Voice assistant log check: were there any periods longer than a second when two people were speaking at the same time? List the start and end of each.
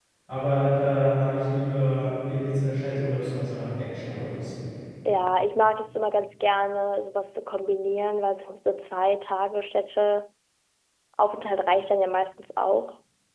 none

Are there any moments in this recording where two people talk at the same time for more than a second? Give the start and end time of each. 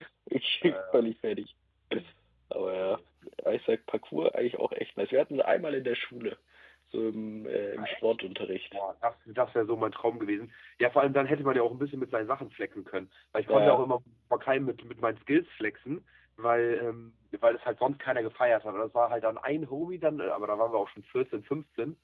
none

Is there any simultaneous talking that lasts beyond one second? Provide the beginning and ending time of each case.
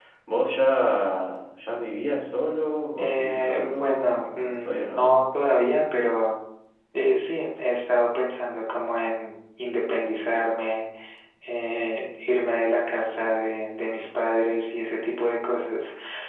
3.0-5.2

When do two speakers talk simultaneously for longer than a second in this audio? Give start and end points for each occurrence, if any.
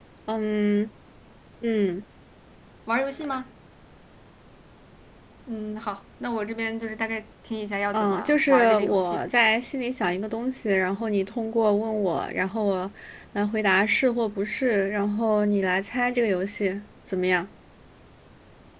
7.9-9.2

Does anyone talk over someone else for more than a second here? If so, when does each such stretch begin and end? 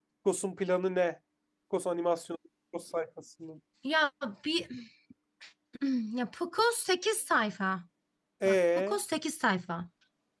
none

